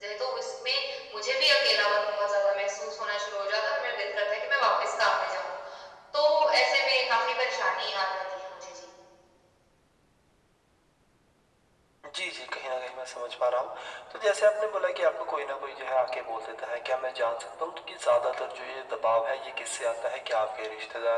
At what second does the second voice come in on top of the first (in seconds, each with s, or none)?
none